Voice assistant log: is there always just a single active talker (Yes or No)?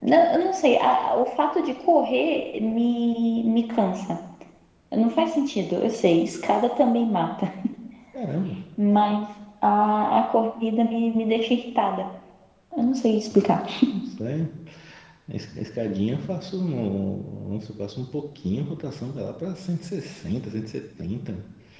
Yes